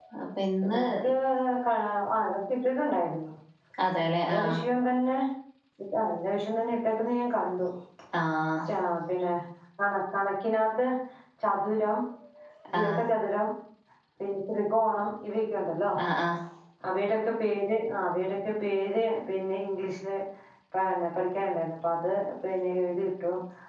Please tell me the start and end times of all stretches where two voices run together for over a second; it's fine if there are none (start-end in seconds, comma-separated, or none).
none